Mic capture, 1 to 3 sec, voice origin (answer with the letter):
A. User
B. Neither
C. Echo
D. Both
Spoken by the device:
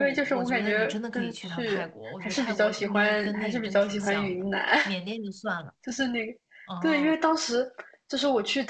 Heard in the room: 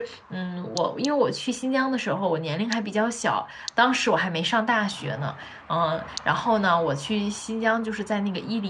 A